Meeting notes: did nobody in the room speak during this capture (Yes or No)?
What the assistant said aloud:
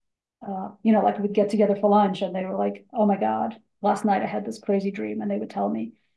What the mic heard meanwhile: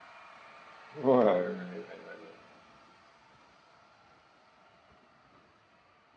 No